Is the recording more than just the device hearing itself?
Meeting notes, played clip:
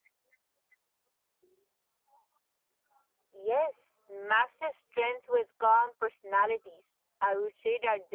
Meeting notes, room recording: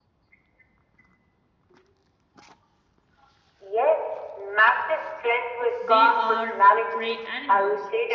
Yes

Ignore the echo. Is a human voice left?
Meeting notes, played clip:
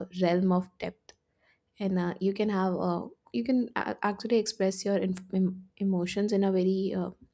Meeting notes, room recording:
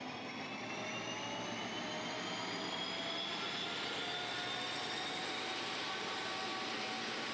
No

